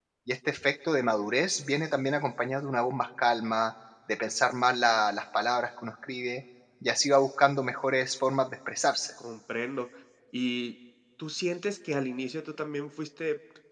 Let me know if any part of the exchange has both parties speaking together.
No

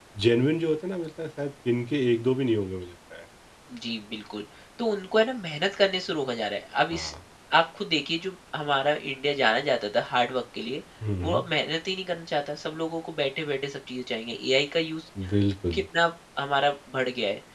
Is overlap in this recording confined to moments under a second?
Yes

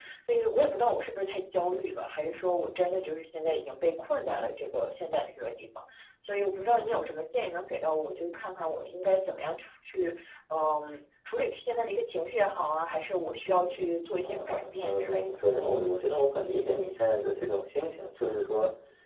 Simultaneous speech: Yes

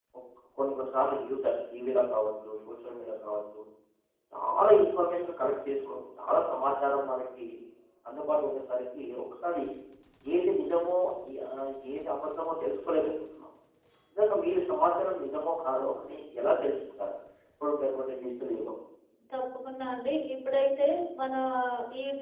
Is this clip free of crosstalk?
Yes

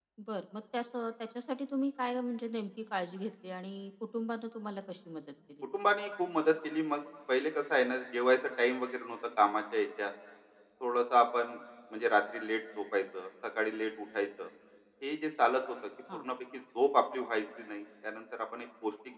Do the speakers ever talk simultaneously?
No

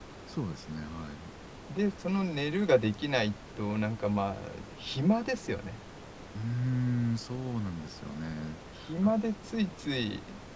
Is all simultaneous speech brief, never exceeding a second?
Yes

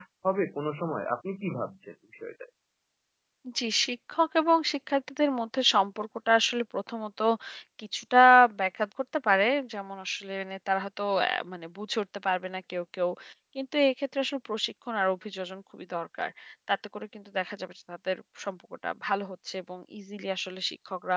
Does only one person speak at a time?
Yes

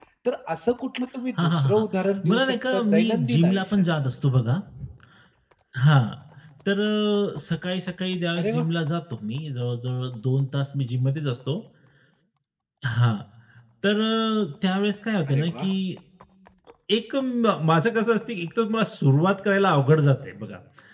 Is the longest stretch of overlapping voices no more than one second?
No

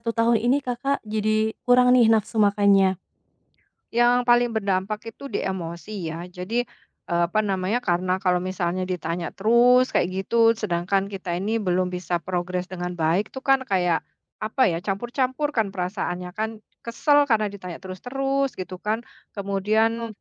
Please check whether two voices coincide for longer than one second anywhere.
No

